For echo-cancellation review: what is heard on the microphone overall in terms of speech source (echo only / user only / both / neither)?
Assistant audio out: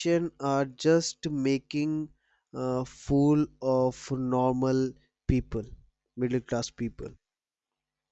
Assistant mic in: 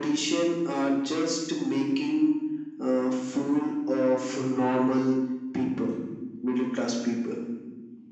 echo only